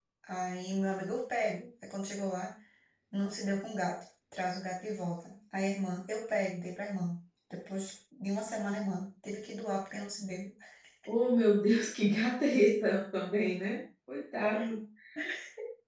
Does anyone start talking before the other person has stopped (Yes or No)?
No